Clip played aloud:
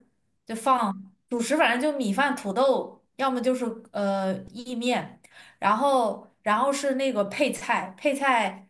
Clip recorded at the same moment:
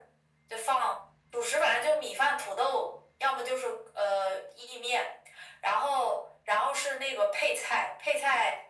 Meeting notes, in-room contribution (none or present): none